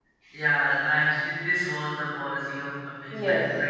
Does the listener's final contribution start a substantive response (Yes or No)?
No